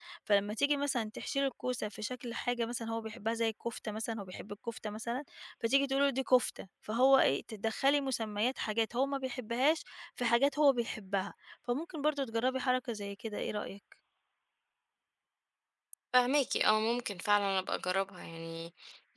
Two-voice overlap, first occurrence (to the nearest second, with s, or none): none